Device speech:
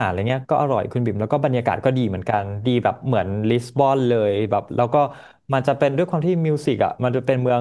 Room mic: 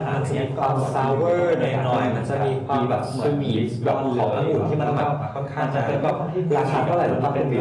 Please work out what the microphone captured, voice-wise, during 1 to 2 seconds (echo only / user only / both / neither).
both